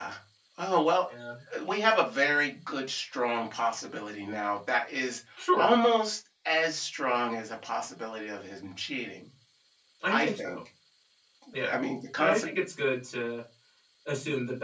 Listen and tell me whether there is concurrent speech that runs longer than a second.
No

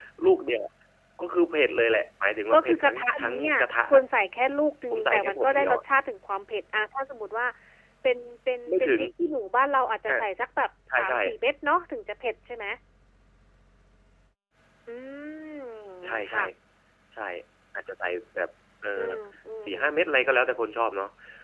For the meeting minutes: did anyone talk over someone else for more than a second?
Yes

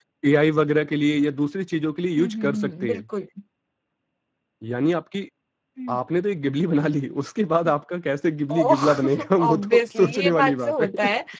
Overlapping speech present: Yes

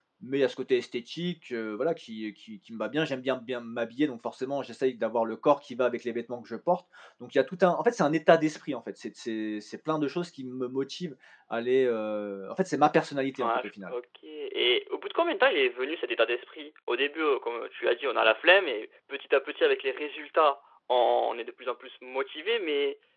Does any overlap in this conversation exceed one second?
No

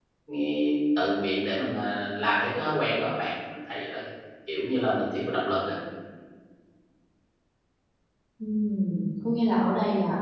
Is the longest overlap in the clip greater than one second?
No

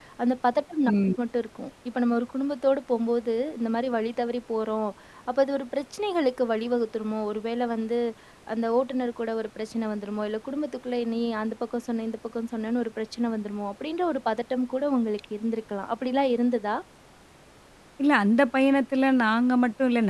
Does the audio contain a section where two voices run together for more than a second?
No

